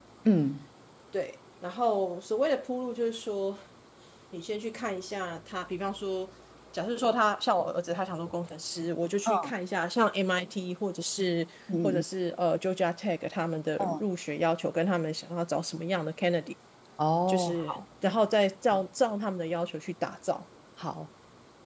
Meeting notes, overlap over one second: none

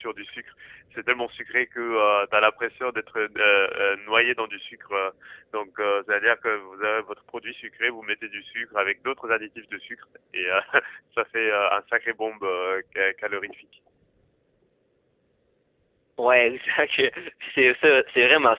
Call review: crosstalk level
none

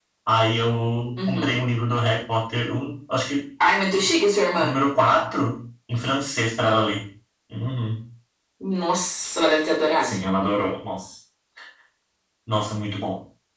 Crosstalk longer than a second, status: none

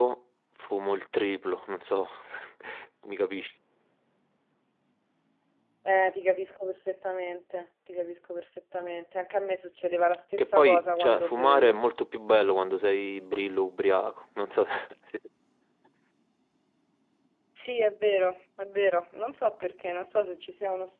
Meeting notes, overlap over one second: present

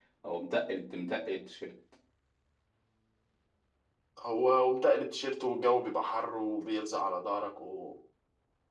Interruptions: none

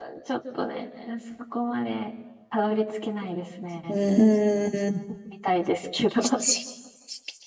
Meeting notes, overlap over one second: none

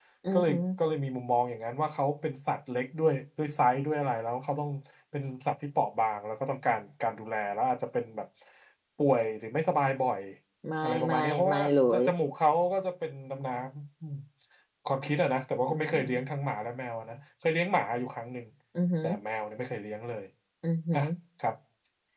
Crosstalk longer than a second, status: present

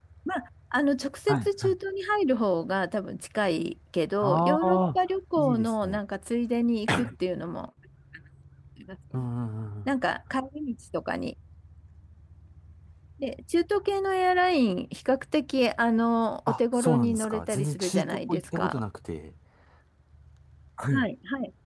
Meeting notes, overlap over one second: present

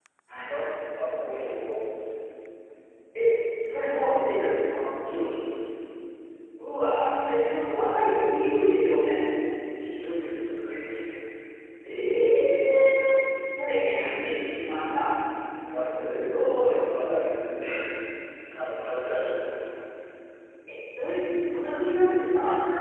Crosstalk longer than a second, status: none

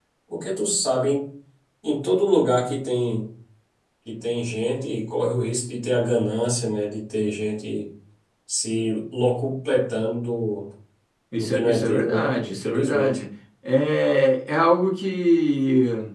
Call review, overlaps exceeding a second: present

